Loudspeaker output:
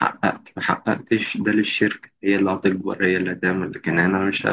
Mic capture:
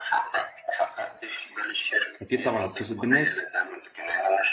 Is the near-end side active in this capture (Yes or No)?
Yes